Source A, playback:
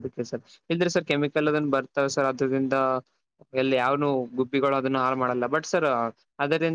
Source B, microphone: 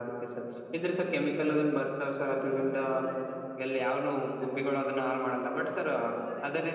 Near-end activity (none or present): present